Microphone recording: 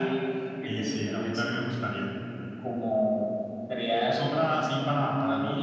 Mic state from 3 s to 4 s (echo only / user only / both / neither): echo only